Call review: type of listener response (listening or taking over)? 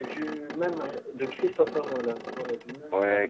taking over